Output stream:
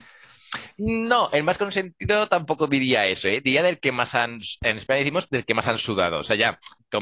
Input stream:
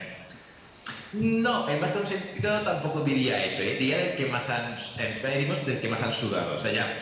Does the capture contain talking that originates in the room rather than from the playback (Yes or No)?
No